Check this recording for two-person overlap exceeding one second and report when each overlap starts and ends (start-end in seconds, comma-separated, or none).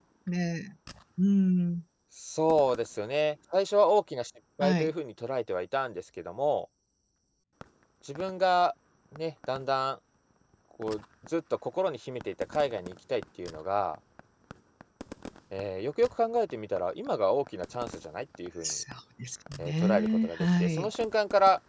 19.6-20.9